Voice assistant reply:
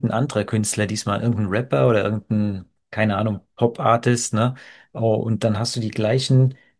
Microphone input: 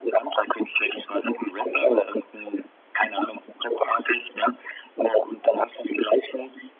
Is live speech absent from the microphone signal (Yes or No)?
Yes